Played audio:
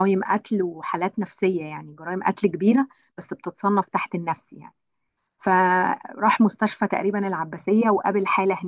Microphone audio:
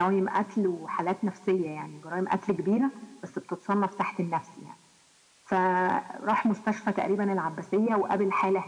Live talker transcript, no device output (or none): none